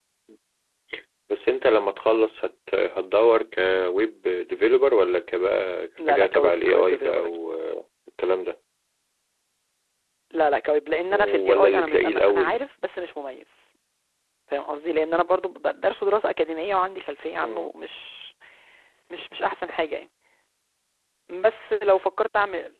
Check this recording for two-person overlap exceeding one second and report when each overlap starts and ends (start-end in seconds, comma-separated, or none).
6.1-7.4, 11.1-12.5